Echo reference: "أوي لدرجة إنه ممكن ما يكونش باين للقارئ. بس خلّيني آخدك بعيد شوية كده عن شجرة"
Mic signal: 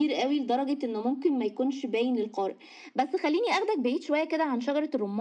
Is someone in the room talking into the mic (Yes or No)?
No